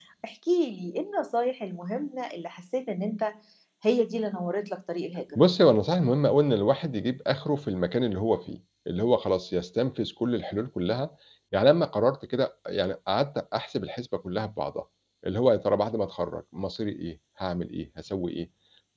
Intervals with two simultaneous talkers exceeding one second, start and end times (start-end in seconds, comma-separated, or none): none